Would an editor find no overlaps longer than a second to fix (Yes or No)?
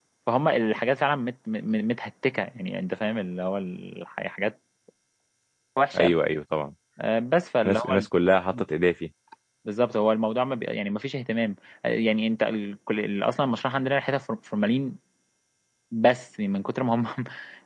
Yes